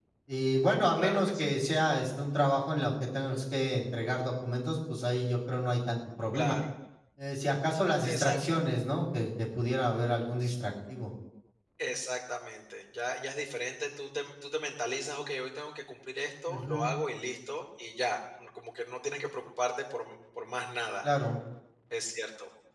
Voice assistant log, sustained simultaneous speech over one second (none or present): none